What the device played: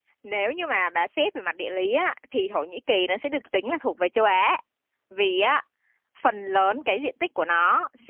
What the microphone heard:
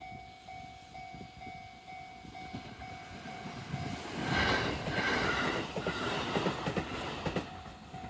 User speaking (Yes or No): No